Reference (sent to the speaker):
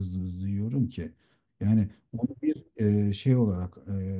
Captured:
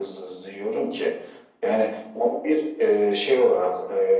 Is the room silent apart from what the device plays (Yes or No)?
Yes